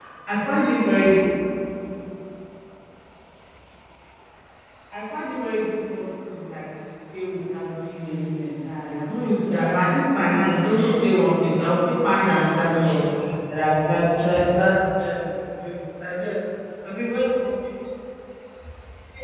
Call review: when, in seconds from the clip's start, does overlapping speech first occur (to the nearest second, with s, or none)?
none